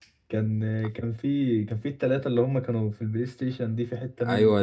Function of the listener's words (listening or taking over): taking over